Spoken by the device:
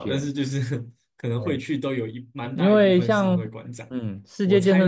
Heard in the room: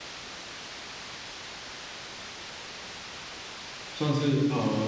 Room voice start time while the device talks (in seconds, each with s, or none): 3.9 s